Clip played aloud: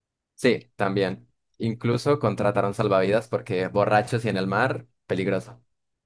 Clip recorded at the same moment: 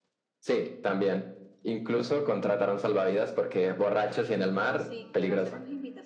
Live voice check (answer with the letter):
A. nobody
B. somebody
B